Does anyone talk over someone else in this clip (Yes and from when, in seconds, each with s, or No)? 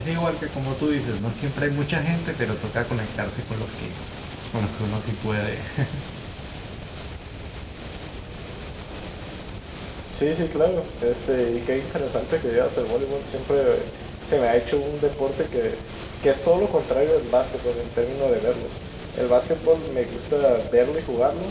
No